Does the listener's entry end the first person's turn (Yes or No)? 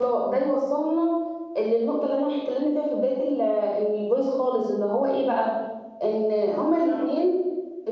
No